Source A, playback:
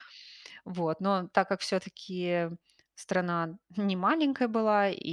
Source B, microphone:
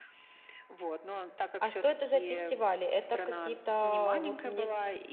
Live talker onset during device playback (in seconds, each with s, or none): 1.6 s